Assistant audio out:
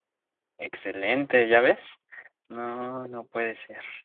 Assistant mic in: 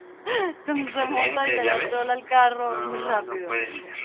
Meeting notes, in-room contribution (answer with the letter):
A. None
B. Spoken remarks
B